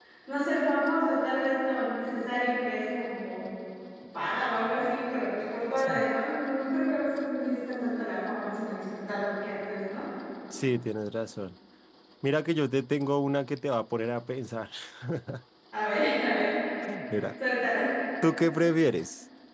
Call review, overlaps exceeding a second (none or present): none